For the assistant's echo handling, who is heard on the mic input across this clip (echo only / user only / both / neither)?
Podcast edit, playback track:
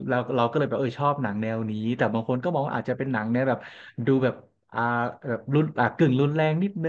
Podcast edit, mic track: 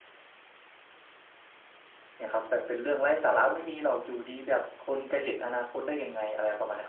user only